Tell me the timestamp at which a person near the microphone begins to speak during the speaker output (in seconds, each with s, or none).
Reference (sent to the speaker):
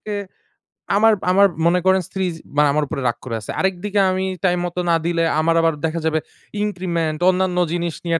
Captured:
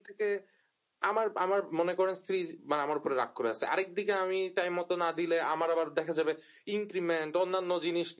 none